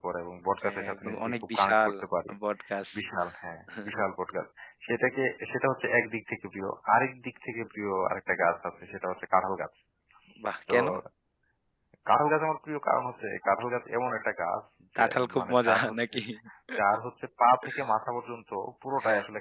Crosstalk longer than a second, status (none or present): present